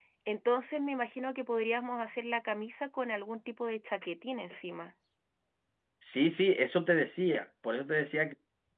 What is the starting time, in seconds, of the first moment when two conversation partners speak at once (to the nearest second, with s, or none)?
none